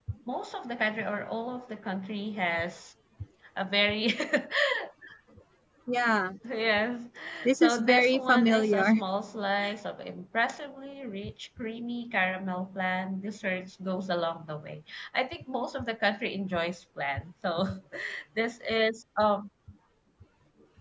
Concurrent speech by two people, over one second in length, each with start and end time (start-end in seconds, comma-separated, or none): 7.6-9.0